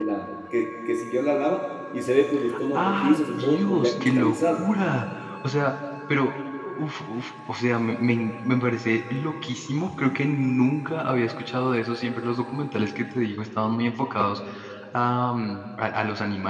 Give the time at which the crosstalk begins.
2 s

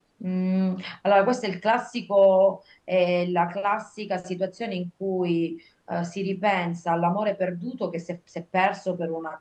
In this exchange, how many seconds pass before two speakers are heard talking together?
none

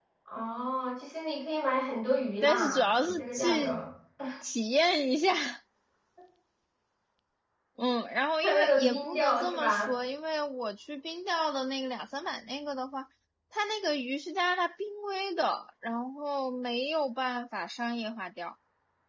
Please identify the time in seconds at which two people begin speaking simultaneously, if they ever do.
2 s

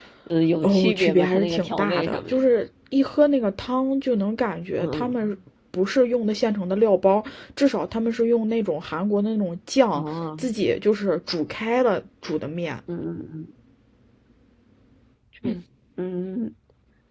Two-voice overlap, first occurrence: 1 s

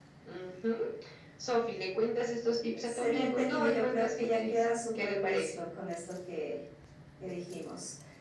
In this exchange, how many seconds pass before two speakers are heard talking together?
3 s

